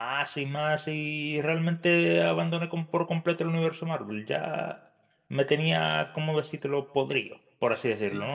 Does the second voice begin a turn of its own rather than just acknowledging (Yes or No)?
Yes